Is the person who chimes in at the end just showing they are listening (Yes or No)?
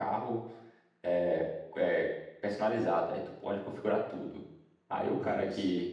Yes